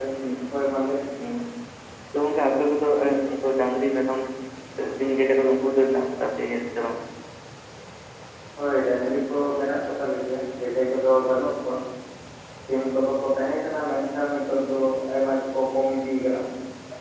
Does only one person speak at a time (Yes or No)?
Yes